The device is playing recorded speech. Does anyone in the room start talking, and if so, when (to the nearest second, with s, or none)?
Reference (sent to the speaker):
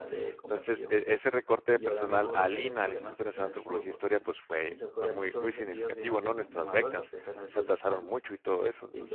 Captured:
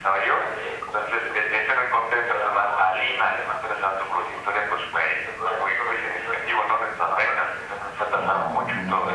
8 s